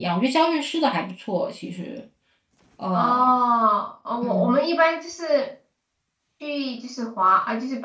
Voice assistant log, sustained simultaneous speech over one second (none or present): none